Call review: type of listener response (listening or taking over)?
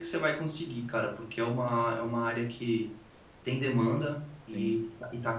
listening